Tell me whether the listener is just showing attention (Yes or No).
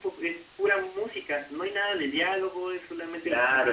No